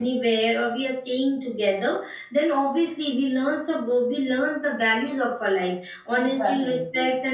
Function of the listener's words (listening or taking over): listening